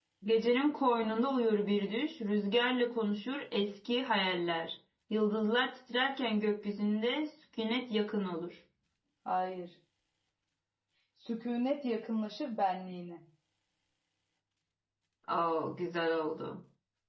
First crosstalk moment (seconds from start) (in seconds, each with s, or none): none